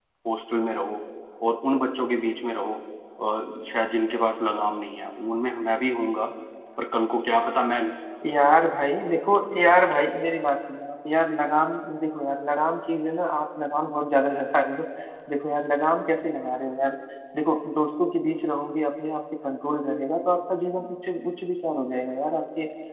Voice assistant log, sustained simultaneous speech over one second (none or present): none